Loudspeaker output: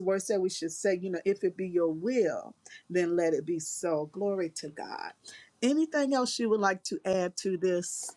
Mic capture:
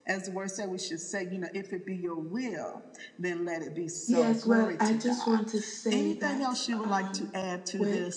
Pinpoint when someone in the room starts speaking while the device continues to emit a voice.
4.0 s

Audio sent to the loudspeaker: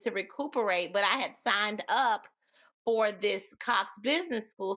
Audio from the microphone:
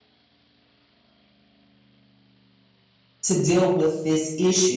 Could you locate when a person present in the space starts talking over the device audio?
3.2 s

